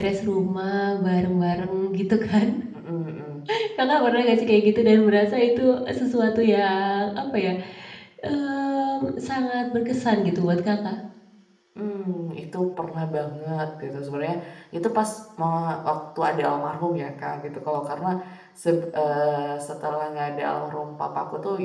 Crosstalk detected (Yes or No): No